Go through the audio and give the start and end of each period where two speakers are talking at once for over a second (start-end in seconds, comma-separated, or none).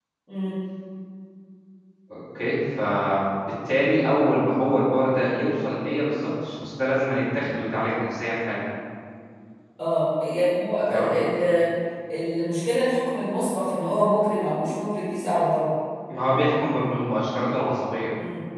none